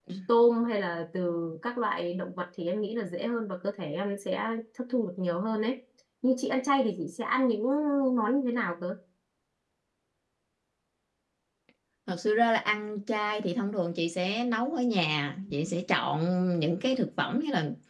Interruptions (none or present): none